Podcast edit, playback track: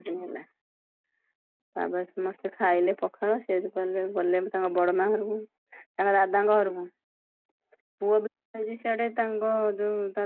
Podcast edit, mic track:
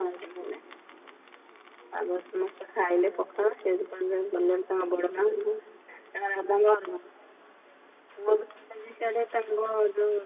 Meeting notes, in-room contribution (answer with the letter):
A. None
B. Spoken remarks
A